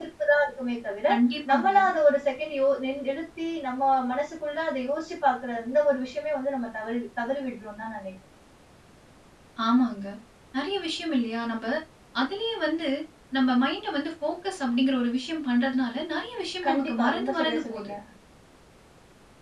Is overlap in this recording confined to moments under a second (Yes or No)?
No